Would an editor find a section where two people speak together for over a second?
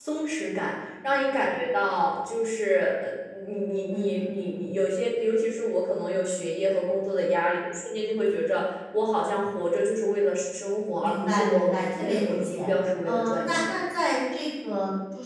Yes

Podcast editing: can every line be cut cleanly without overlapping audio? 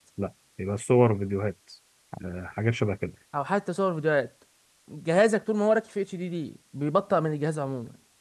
Yes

